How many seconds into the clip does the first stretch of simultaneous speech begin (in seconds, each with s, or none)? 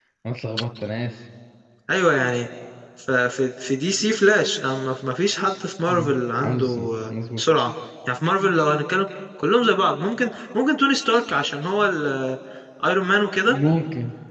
5.9 s